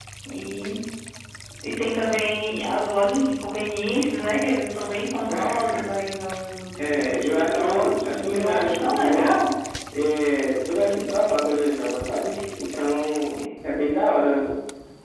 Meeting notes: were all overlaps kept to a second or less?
No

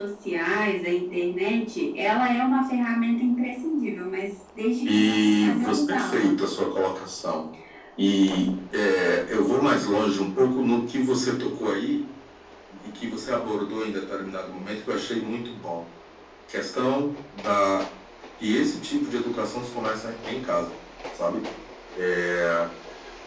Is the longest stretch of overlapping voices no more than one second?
No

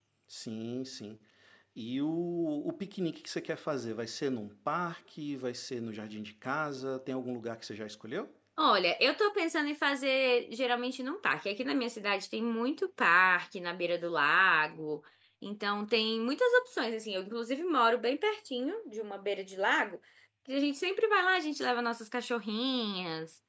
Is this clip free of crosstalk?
Yes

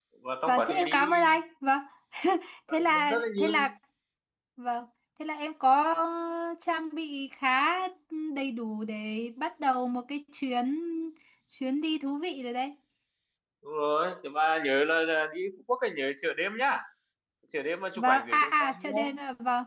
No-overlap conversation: No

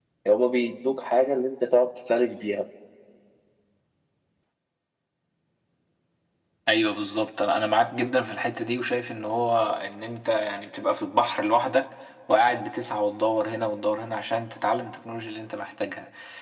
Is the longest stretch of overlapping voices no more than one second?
Yes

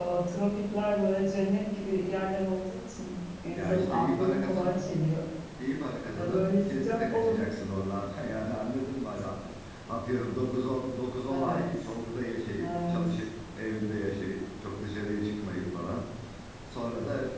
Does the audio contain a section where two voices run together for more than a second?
Yes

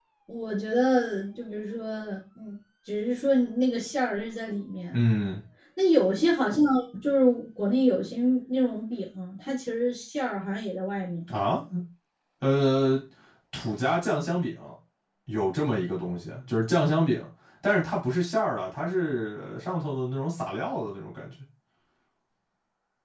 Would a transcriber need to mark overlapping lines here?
No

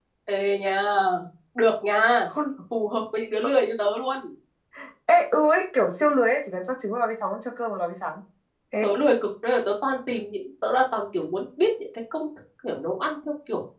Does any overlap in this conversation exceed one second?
No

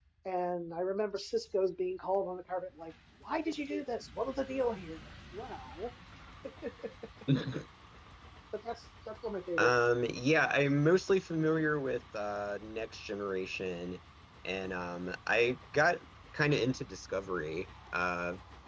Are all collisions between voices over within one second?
Yes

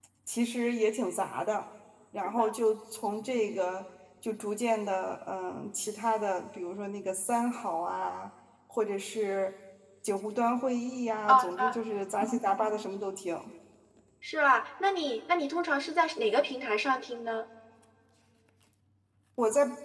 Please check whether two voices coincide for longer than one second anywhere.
No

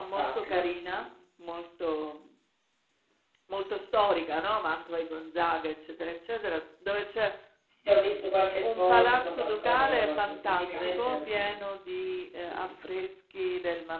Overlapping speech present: Yes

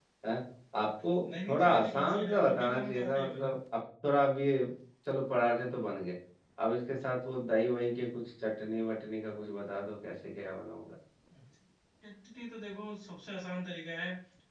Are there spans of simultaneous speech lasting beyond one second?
Yes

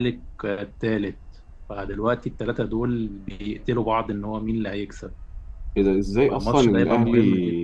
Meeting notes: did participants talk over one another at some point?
Yes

